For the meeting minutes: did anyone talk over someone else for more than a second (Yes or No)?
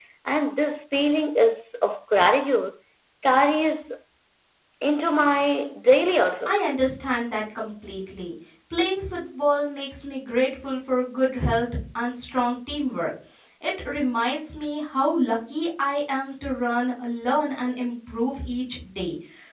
No